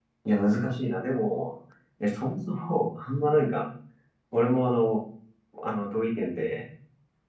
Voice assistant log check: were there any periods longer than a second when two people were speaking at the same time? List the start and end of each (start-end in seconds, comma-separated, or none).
none